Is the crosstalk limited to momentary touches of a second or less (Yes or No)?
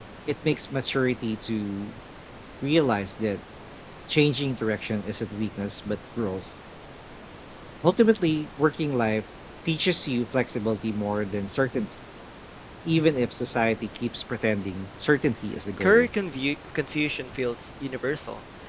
Yes